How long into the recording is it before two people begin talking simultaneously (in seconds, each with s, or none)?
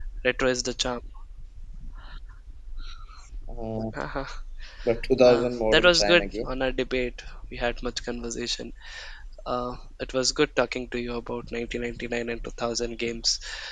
5.2 s